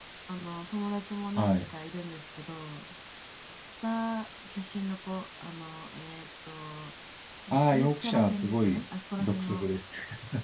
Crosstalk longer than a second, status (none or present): present